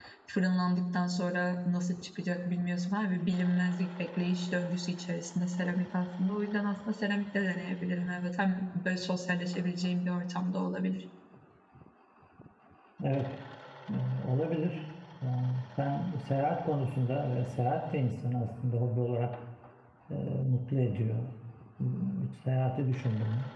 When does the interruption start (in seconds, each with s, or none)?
none